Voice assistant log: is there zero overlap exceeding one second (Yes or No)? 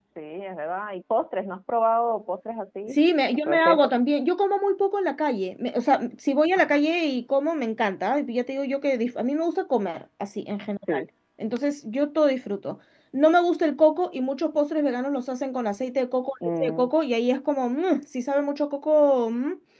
Yes